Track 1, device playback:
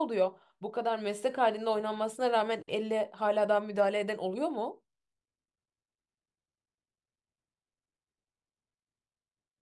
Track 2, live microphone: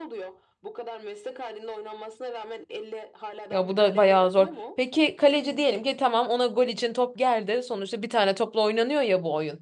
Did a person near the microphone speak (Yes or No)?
Yes